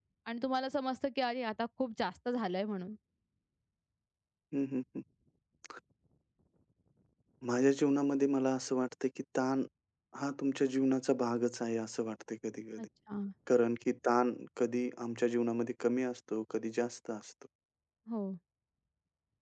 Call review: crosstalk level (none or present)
none